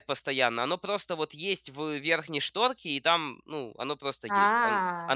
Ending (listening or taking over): listening